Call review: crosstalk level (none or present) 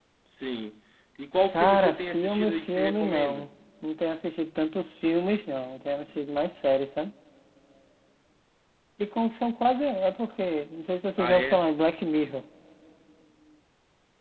present